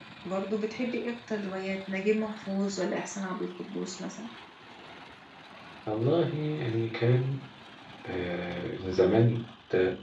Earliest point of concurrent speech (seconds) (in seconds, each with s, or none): none